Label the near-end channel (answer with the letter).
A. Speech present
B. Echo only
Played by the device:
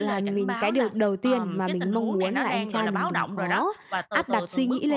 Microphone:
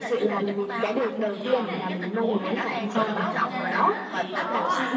A